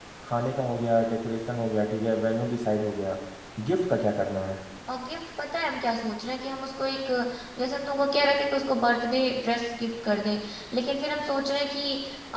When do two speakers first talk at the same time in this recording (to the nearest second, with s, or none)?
none